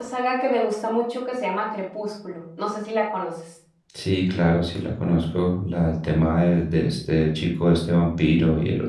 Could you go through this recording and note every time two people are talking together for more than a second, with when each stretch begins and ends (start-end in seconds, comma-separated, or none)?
none